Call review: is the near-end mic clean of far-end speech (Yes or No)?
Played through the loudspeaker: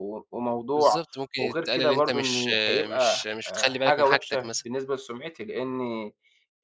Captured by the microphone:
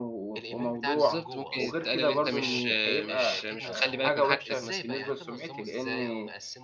No